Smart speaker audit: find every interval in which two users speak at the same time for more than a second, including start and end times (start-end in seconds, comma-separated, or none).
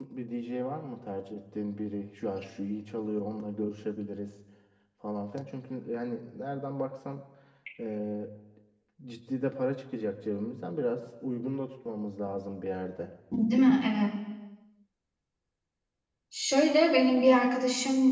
none